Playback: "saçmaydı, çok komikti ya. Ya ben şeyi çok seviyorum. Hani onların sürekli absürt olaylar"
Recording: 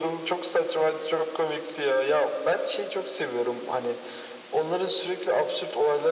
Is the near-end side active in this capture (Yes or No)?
No